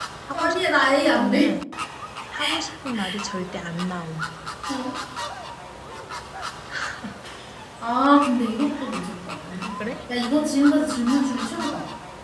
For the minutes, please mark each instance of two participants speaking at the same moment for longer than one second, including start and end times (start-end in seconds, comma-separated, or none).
none